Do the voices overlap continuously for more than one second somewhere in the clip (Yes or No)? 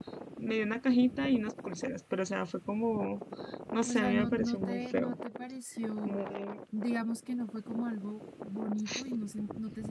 Yes